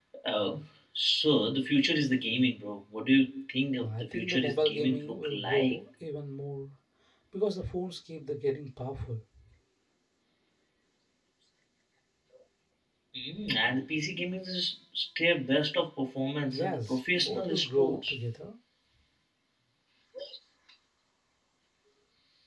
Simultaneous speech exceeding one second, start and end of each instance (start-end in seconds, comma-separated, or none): 3.8-5.8, 16.5-18.2